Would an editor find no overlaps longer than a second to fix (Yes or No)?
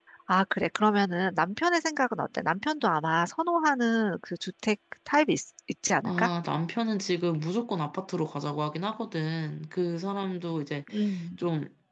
Yes